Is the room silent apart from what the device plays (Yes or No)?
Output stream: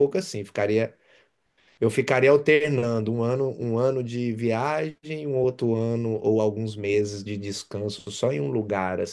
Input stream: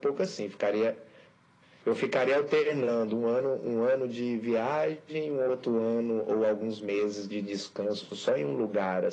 Yes